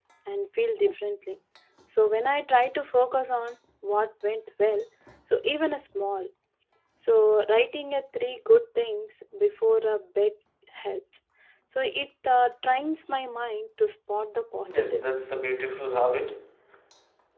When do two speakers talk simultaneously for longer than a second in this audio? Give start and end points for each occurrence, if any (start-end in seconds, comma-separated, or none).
none